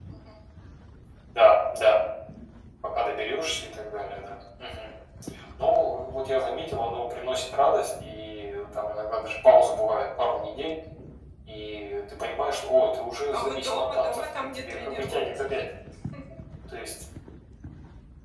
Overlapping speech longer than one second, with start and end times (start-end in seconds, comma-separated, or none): 13.3-15.5